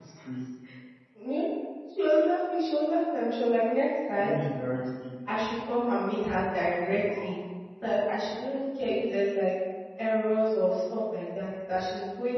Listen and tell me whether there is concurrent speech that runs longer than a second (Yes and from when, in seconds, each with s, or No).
No